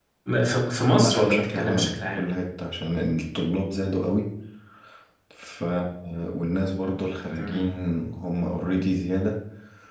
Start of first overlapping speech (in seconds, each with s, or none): 1.0 s